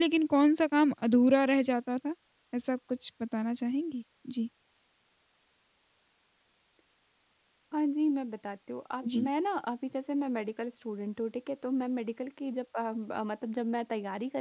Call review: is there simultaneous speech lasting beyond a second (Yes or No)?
No